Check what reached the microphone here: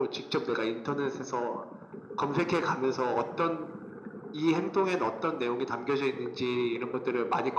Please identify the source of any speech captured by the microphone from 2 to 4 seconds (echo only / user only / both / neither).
echo only